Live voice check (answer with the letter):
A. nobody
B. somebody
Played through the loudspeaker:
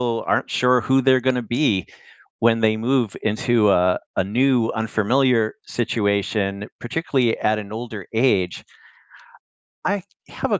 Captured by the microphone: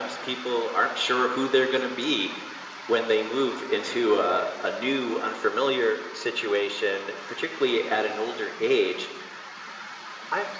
A